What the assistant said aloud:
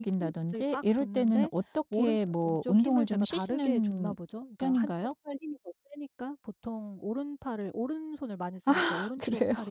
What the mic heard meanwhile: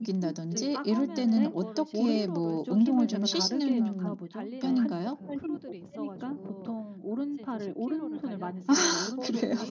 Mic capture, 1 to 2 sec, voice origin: both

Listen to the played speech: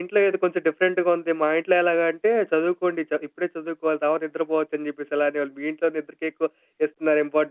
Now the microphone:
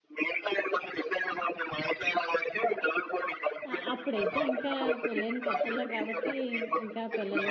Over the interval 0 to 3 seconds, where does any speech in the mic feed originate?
echo only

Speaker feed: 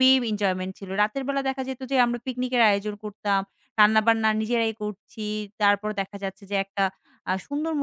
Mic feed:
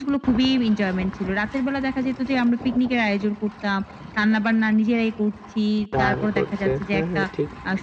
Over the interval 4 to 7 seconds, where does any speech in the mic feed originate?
both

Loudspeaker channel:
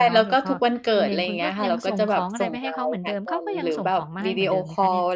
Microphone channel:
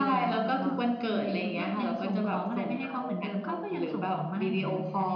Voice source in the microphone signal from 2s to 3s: echo only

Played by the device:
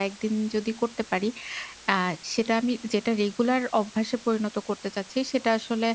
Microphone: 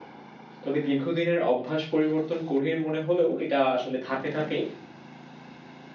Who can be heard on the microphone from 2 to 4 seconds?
user only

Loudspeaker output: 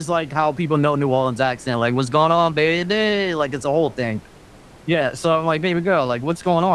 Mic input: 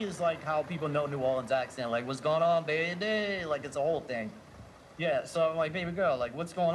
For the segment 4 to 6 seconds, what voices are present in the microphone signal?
echo only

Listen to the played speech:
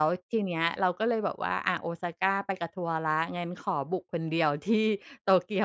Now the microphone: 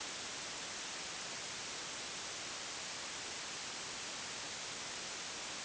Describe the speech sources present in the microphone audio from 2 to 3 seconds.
neither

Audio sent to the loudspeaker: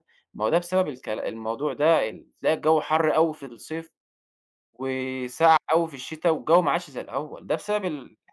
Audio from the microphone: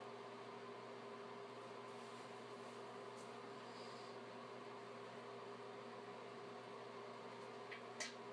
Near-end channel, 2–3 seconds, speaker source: neither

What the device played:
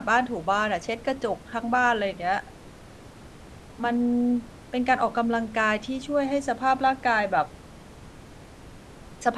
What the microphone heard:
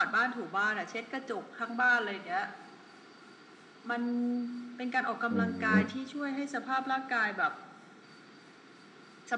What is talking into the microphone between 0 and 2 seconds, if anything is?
echo only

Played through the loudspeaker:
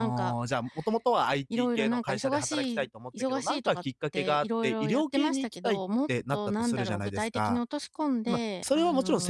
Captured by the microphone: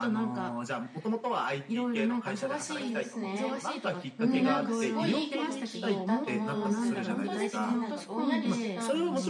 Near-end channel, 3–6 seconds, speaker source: both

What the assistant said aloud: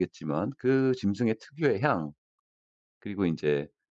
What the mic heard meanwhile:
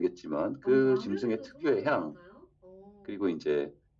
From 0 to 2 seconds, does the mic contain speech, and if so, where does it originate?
both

